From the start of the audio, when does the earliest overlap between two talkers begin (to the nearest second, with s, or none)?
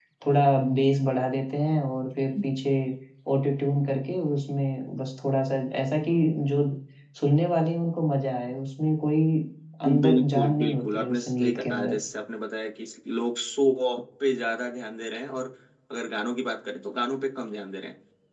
10 s